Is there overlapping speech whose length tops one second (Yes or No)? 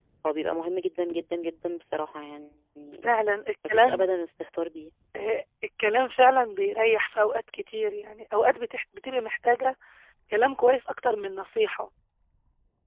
No